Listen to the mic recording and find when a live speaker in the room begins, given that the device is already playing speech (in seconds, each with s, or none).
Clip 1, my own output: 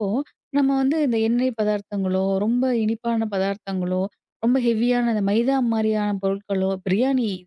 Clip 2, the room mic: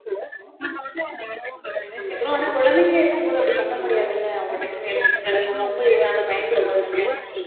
1.8 s